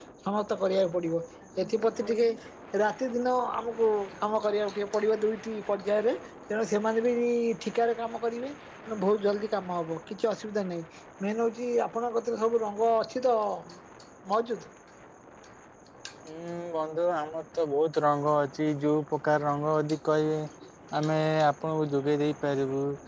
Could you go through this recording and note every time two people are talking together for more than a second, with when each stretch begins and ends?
none

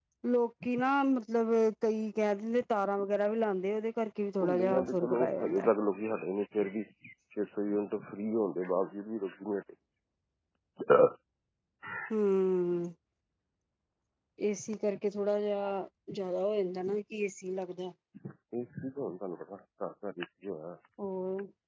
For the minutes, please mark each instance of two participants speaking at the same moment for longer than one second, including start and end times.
4.4-5.7

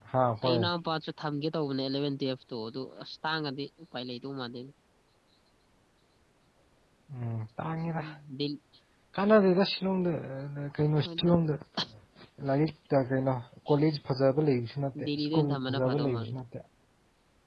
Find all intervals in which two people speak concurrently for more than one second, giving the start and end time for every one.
15.0-16.3

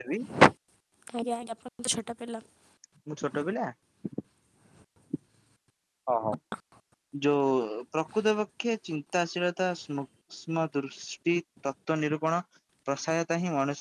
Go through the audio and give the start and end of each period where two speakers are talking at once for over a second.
none

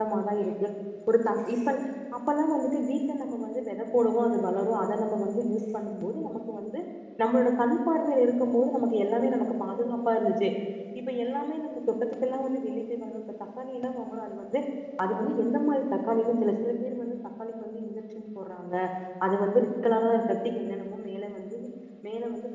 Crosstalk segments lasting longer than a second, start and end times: none

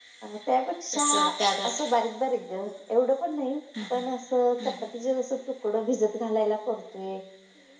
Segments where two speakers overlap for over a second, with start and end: none

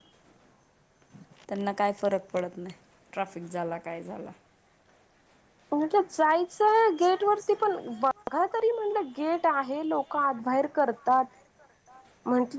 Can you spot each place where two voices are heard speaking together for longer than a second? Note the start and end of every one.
none

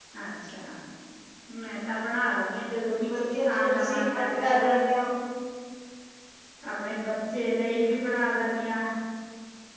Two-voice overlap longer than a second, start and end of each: 3.1-4.8

